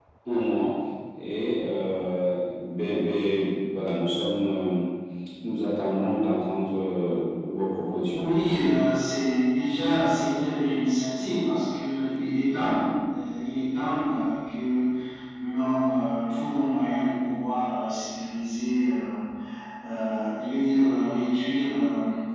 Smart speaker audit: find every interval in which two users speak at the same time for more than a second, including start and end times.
none

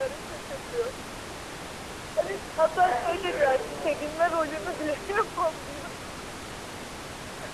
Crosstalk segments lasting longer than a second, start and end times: 2.8-5.0

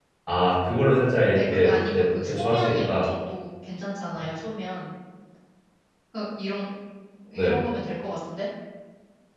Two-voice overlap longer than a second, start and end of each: 1.4-3.1

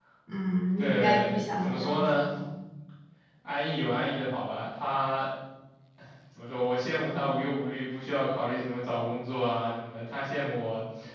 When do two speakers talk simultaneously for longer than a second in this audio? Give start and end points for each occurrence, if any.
0.8-2.3

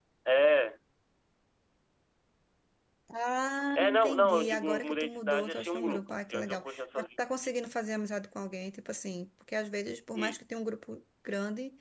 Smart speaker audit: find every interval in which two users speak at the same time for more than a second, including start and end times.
3.8-7.6

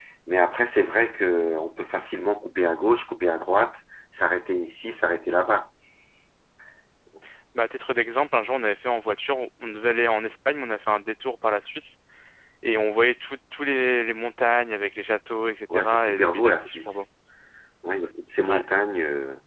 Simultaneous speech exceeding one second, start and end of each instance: 15.7-17.0

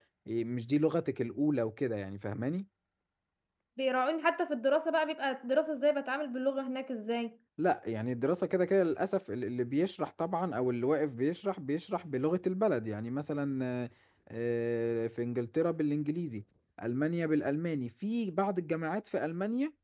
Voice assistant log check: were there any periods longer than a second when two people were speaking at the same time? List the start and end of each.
none

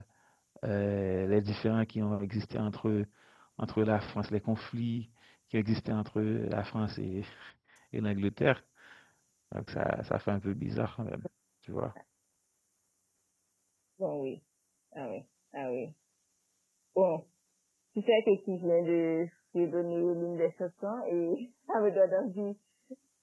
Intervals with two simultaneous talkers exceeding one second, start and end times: none

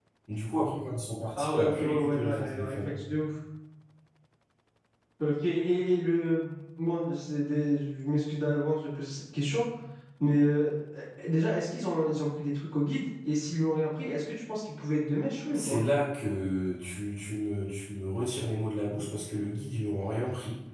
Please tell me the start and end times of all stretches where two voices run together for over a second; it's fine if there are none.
1.4-2.9

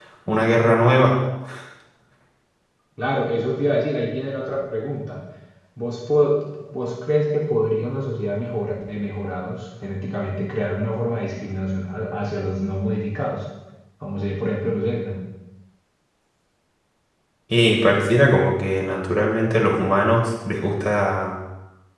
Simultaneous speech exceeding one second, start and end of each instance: none

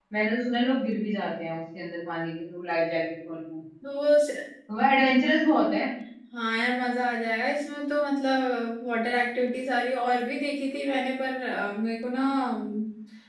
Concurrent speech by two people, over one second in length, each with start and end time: none

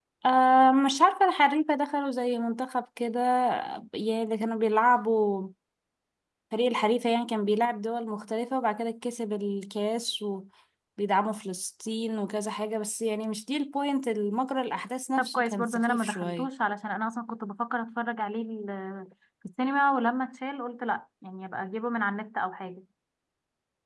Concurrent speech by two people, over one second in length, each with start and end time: 15.2-16.5

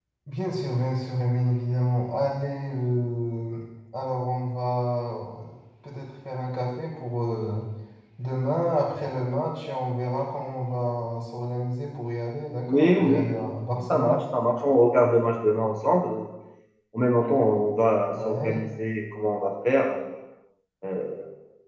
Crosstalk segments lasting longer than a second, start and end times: 12.7-14.2

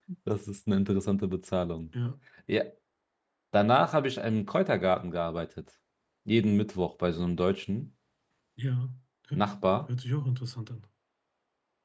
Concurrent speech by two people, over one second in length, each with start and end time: none

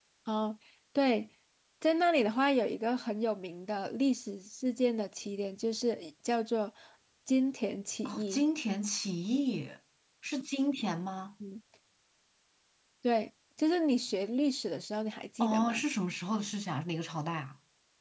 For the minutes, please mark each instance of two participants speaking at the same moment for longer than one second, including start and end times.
none

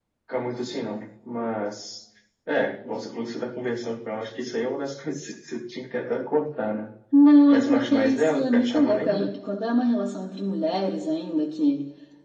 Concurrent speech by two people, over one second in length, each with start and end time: 7.5-9.3

